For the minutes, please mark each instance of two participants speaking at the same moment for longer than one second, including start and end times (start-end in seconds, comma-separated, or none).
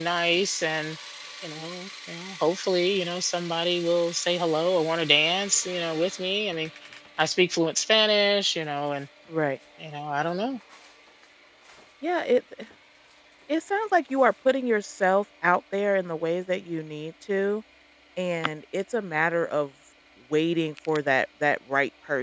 none